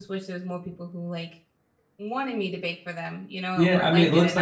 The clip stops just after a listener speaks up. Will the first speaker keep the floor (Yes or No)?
No